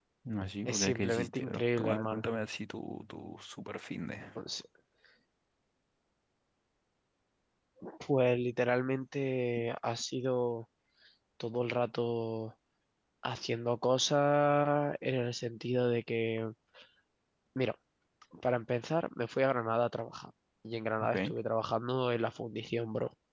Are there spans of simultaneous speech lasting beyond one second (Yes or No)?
Yes